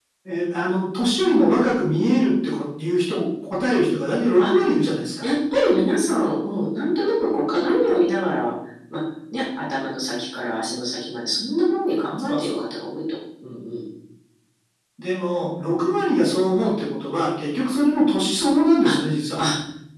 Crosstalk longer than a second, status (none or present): none